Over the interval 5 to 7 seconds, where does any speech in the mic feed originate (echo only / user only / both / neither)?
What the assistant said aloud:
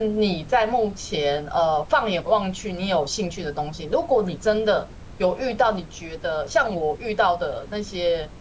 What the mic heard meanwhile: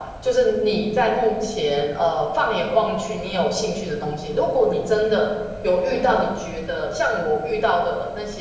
echo only